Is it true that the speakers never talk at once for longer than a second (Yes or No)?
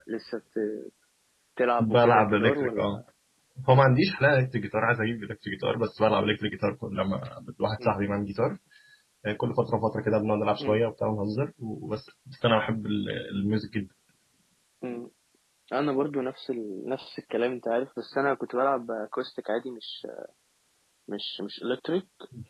No